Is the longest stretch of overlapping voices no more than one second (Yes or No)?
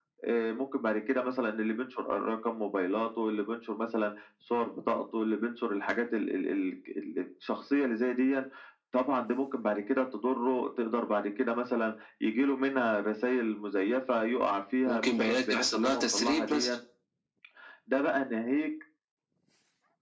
No